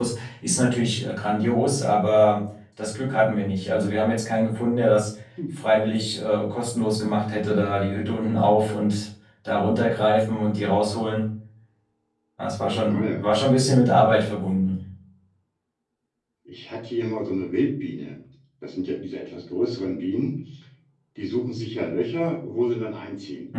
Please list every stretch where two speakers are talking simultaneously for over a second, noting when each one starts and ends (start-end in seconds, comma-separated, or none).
none